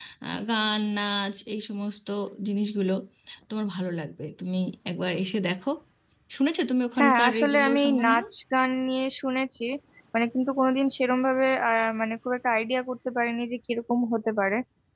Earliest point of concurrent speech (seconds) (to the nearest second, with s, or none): 7 s